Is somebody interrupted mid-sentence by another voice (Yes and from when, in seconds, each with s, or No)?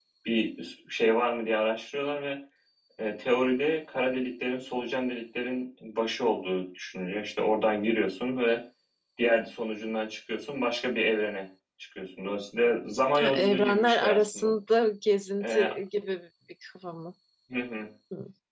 Yes, from 13.2 s